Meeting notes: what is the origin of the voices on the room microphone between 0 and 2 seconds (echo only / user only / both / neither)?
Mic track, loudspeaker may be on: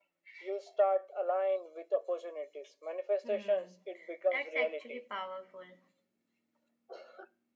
echo only